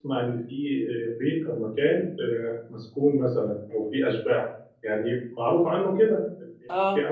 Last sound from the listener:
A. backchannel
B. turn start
A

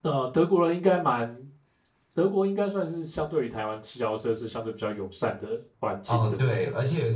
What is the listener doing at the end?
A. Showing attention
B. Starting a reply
B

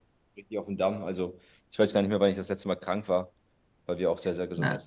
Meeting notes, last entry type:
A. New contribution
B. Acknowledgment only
A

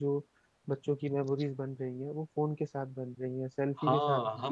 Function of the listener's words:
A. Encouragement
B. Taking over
B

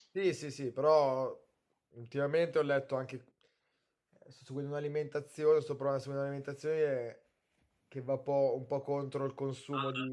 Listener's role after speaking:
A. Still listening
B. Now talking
B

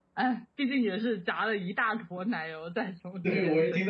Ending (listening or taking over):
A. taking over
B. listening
A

